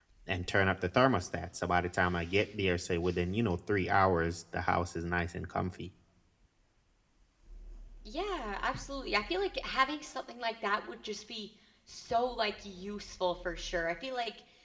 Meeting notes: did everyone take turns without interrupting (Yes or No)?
Yes